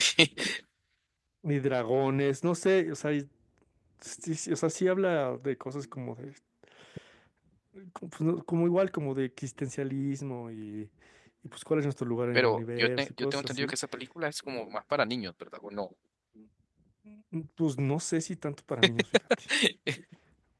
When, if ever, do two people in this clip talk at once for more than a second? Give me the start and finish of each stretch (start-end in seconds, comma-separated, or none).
12.4-13.7